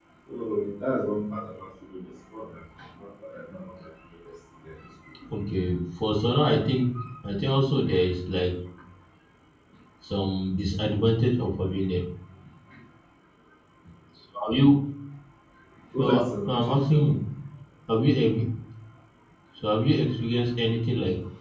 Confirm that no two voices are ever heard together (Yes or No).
No